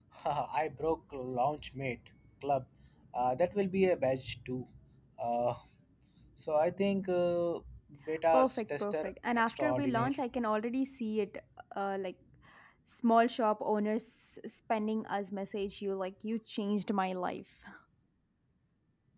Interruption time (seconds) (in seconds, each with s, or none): 8.3 s